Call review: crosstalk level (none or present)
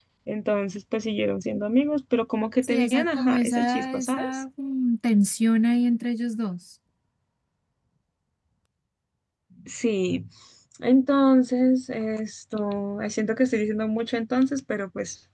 present